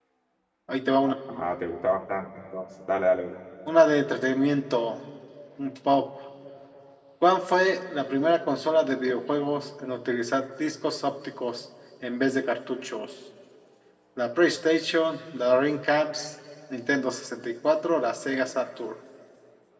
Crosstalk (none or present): none